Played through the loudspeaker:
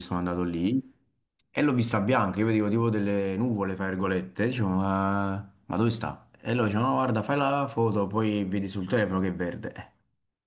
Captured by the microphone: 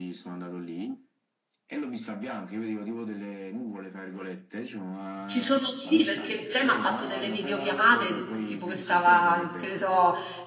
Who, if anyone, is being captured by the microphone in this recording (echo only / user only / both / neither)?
both